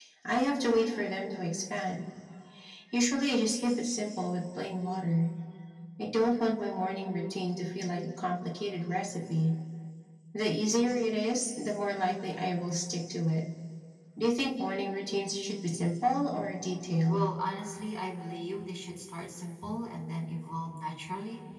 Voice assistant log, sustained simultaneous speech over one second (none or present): none